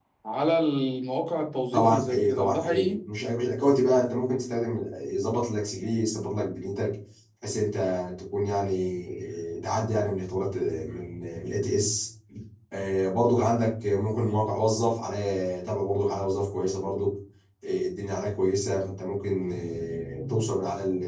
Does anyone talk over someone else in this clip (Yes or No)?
Yes